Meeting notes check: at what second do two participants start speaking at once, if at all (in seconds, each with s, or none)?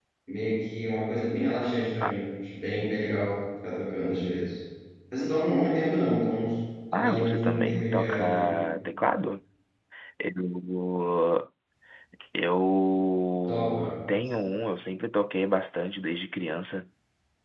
6.9 s